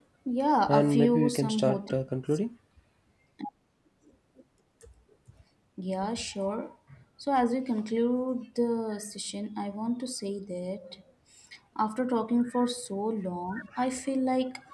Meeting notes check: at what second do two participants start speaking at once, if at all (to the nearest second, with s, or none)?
1 s